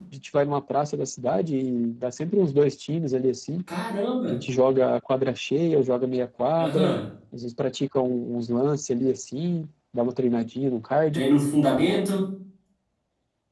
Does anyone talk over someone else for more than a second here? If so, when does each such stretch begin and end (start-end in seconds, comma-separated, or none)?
none